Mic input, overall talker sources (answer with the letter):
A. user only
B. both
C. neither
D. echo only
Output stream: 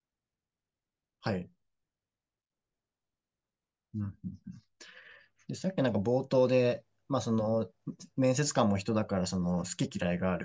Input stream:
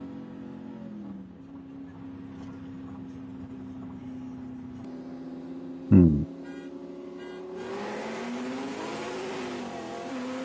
A